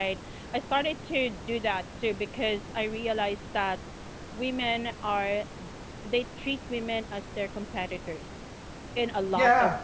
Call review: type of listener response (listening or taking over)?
taking over